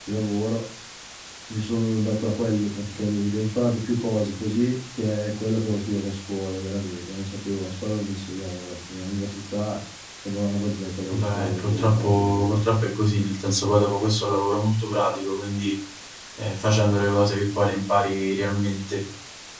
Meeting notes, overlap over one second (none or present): present